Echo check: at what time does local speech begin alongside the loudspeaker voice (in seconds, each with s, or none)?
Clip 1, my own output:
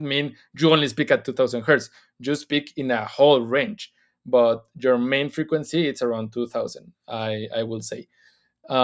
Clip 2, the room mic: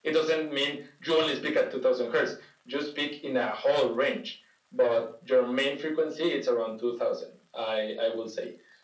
none